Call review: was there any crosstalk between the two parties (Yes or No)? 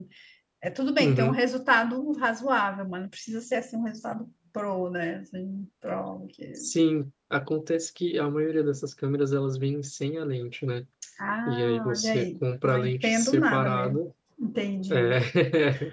Yes